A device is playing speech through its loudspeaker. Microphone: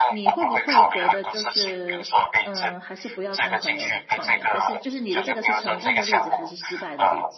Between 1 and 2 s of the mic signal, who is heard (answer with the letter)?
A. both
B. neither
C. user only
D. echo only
A